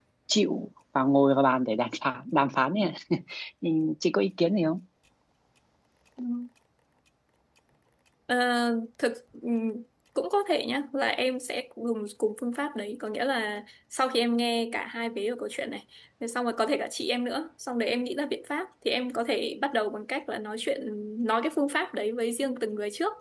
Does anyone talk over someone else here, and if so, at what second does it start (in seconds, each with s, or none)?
none